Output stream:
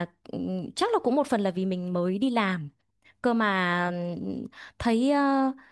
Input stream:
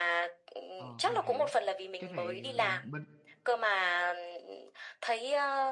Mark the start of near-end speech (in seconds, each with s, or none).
0.8 s